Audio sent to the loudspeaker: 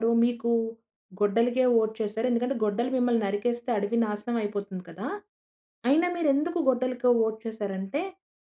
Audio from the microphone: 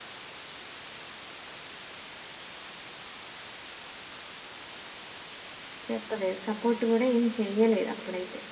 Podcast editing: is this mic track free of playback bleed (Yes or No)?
Yes